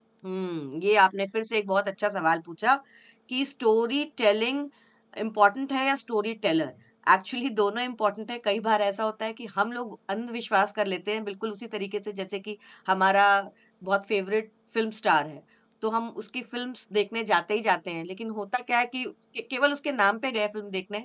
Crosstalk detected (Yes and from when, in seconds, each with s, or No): No